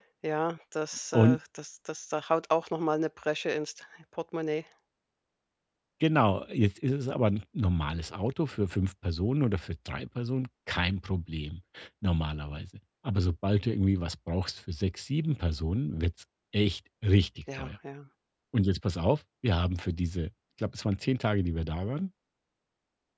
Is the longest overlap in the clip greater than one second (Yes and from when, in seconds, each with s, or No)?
No